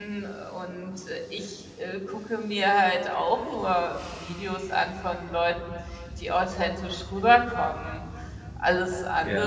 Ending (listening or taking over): listening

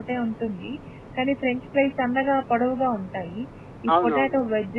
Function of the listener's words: listening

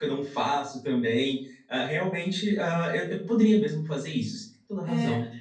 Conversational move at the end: taking over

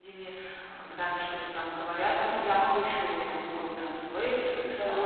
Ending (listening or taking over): listening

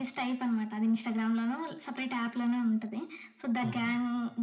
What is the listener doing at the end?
listening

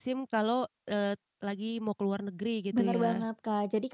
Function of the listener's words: taking over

